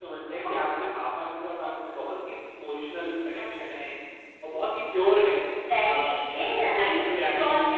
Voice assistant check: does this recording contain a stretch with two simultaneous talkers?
Yes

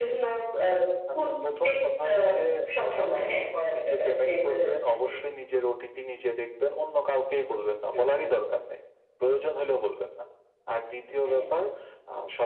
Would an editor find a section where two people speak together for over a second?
Yes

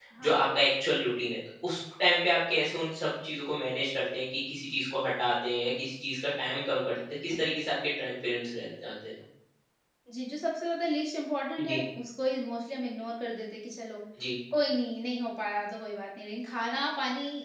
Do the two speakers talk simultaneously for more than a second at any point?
No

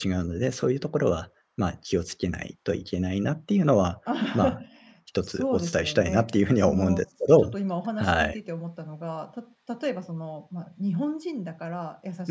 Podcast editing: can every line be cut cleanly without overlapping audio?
No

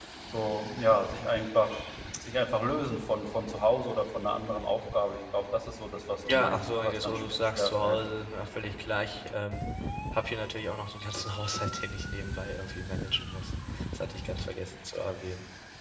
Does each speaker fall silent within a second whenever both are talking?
No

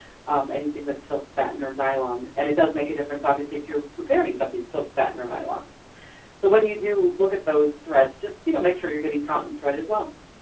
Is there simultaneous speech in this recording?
No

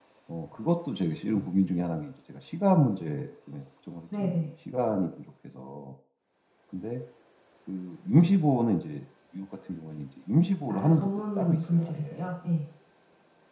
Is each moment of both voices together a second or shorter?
No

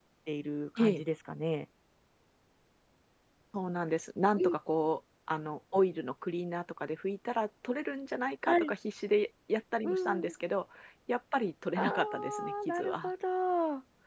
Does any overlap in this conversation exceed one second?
Yes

